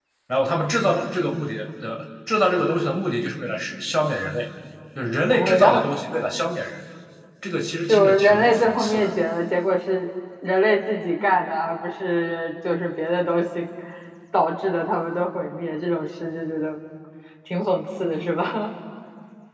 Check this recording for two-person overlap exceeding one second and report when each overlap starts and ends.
7.9-9.1

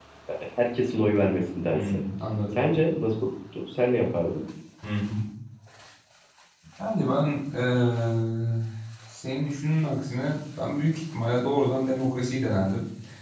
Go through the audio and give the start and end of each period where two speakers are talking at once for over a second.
none

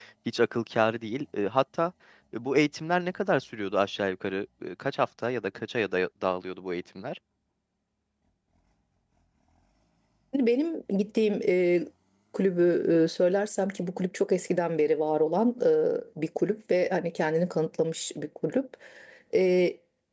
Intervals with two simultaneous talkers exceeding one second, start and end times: none

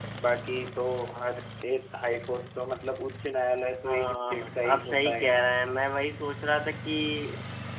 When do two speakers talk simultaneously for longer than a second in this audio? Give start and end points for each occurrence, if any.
3.9-5.5

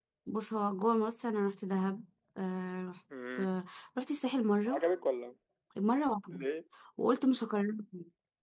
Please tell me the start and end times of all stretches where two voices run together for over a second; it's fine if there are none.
none

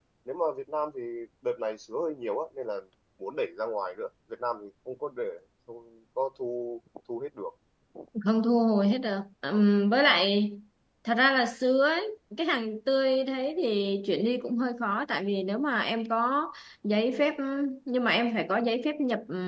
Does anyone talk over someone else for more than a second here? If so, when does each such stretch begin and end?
none

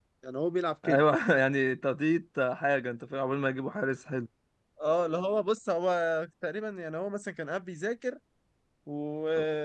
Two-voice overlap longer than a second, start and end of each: none

